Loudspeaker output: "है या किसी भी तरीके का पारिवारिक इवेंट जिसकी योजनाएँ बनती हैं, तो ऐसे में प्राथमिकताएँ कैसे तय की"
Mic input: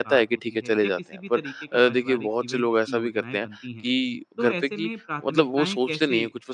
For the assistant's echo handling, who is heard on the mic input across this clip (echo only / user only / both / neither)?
both